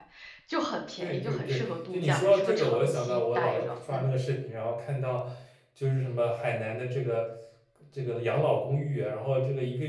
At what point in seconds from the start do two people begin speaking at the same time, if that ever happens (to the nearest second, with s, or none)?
1 s